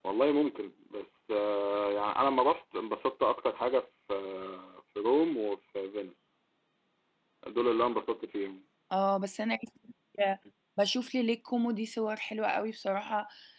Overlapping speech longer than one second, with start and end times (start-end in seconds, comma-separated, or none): none